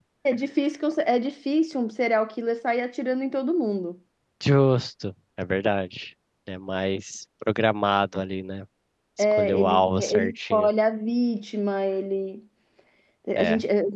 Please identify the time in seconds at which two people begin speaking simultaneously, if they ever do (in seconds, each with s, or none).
9.3 s